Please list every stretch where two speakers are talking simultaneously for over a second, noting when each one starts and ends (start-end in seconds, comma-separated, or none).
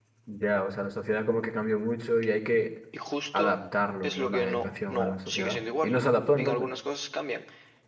4.0-5.9